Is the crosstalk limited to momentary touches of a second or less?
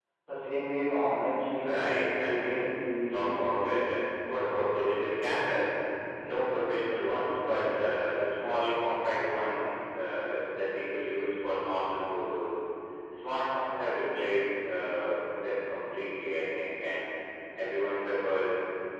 No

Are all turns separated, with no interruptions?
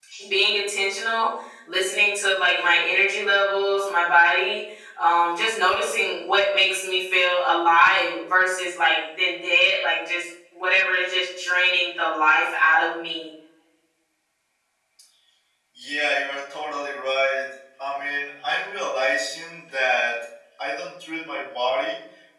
Yes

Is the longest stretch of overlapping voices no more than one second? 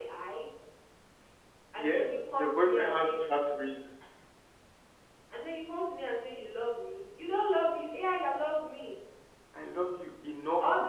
No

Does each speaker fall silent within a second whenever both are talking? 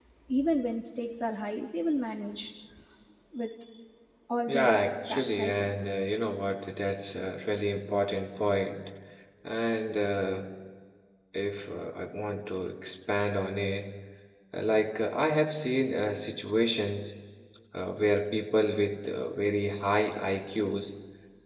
No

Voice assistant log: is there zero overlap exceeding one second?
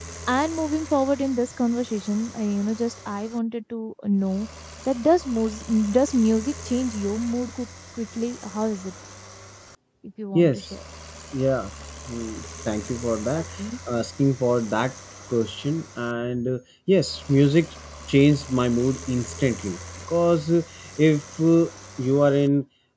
Yes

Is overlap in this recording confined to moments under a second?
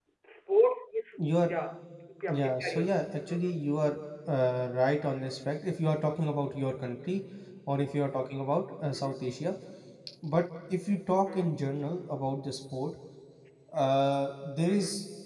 No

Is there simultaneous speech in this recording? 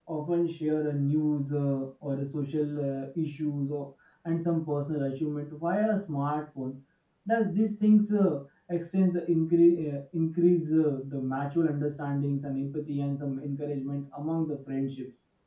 No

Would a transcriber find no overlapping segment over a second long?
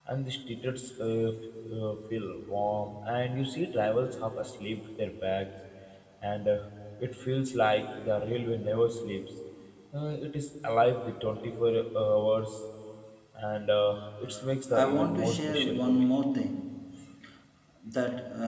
No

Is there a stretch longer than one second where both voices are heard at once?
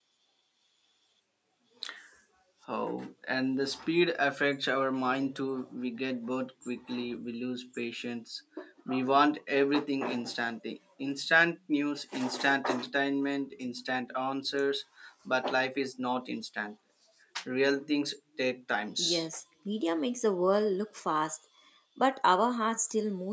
No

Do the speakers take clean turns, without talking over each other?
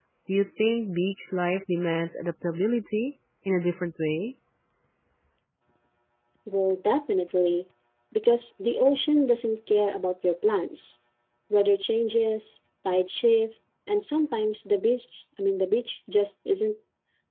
Yes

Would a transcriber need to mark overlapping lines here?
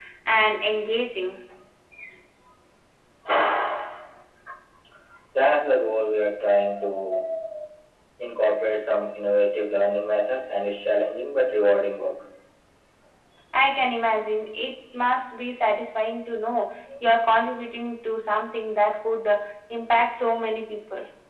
No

